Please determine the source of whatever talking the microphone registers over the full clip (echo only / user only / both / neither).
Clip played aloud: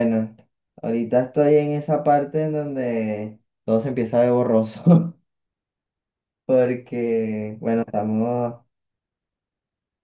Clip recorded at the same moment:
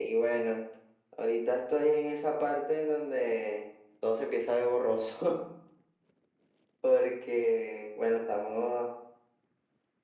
echo only